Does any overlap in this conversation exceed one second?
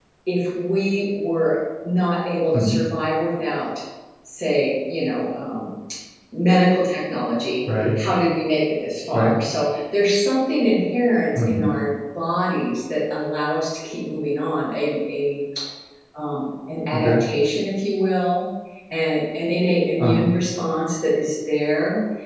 No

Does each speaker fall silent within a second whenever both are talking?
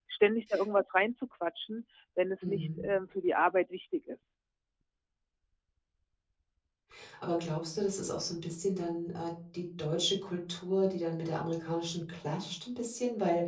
Yes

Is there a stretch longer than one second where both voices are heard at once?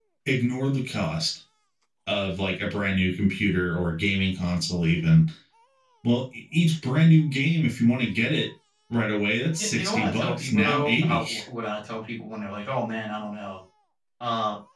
Yes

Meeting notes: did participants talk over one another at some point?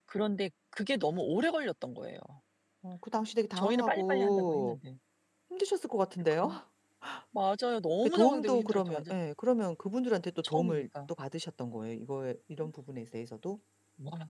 Yes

